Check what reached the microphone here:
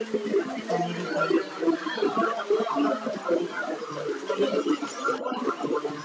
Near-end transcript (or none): கண்டிப்பா